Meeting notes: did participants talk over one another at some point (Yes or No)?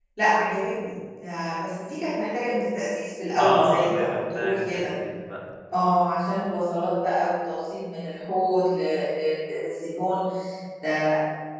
Yes